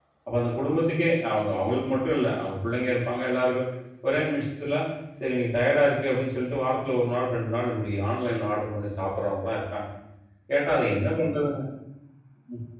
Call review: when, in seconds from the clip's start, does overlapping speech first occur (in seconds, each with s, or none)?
none